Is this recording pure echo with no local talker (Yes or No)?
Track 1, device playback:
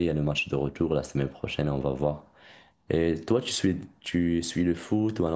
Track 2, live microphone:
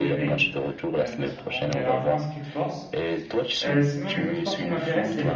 No